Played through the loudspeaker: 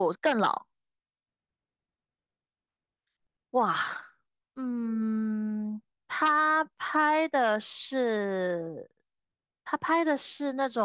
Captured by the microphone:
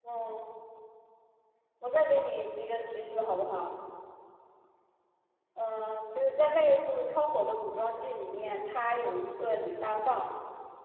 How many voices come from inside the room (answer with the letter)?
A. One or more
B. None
A